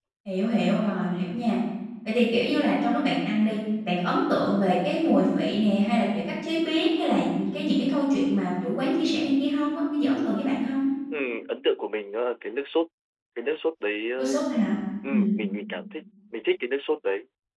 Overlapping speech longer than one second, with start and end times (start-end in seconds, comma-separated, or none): none